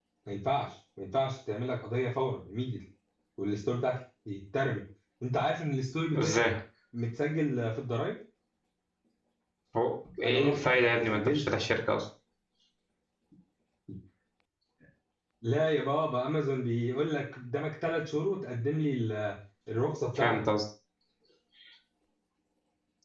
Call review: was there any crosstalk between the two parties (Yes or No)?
Yes